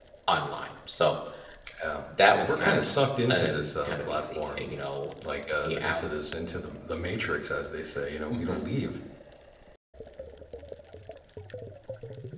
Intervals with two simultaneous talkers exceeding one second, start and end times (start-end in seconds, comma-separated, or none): 3.3-4.7